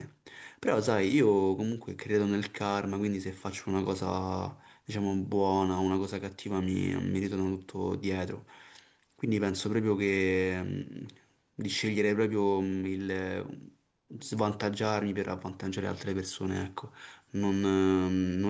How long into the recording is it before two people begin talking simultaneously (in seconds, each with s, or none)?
none